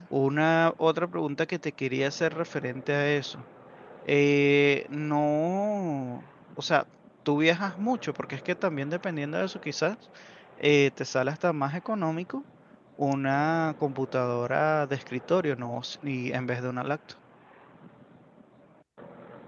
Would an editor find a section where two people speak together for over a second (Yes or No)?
No